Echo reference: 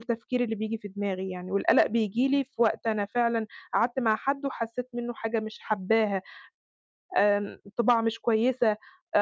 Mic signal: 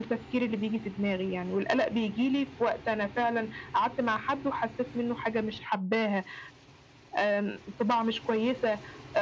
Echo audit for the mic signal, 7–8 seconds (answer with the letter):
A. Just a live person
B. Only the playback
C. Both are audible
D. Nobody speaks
B